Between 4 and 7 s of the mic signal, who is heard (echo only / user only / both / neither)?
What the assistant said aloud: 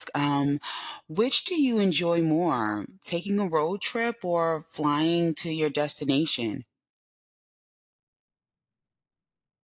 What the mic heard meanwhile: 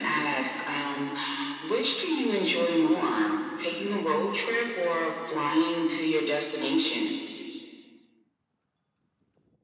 echo only